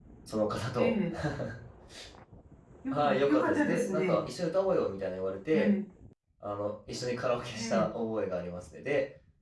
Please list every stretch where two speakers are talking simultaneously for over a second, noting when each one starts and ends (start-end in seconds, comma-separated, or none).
2.9-4.3